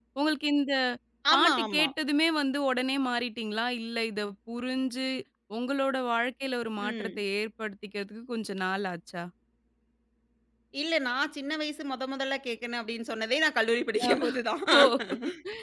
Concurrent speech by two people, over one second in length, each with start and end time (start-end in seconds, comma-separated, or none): none